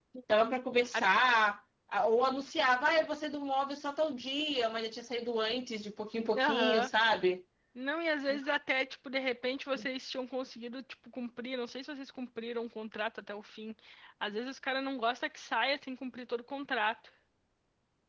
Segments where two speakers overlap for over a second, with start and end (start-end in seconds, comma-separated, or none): none